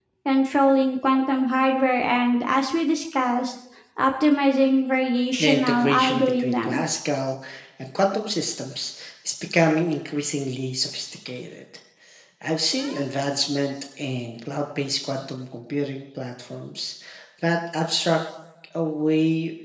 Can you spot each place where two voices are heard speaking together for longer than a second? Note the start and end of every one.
5.4-6.8

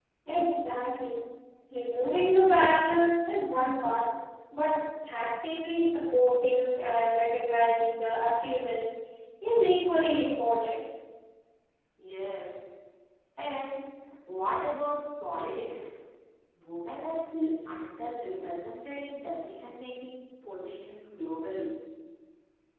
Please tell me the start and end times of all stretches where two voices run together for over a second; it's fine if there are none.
none

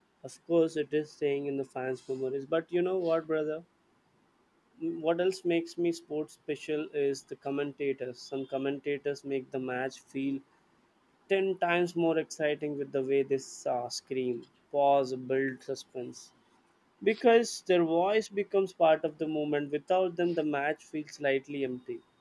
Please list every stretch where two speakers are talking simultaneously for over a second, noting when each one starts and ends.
none

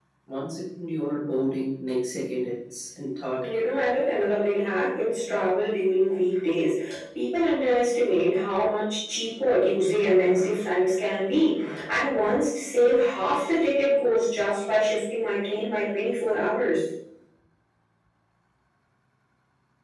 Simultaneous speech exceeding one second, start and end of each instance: none

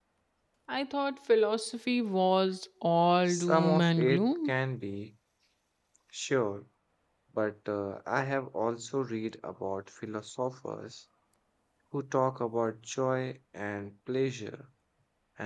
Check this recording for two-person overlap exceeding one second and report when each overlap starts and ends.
3.3-4.5

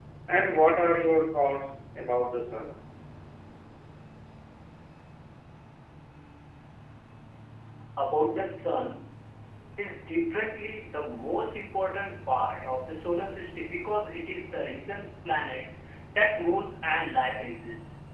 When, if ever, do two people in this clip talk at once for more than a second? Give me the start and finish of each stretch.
none

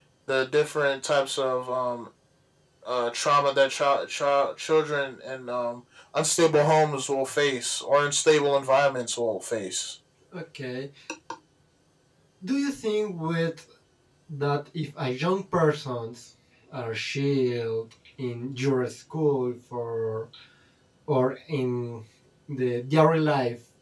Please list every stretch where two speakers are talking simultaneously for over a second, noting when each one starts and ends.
none

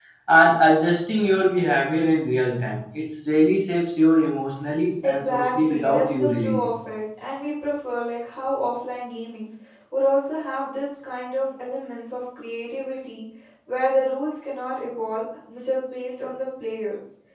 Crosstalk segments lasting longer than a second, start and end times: 5.0-6.7

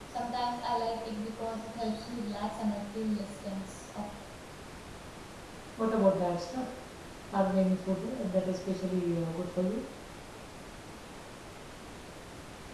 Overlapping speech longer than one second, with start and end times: none

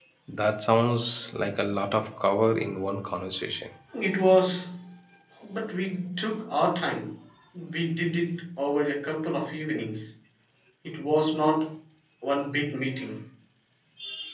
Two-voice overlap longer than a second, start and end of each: none

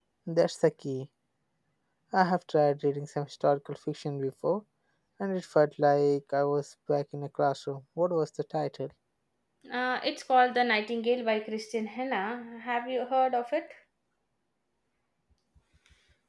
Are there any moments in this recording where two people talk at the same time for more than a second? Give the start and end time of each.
none

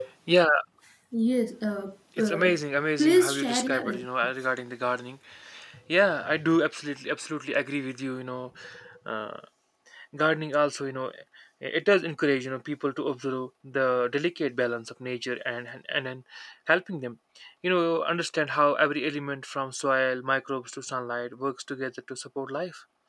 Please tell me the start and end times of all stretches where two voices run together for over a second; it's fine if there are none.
3.0-4.3

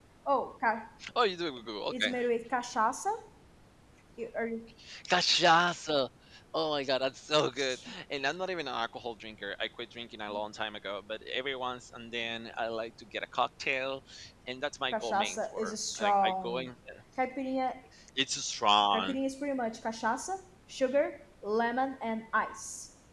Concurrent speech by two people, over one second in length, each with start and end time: 14.9-16.7

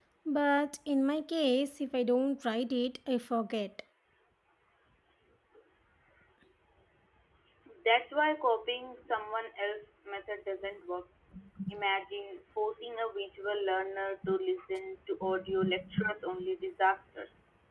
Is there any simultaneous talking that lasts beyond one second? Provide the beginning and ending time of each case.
none

